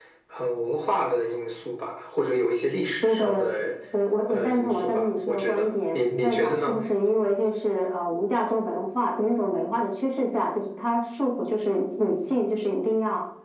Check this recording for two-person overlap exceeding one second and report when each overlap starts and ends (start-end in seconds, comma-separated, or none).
4.3-6.8